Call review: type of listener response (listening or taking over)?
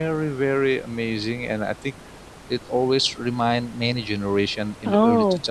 listening